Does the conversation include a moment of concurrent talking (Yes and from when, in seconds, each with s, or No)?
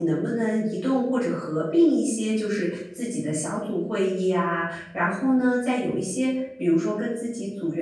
No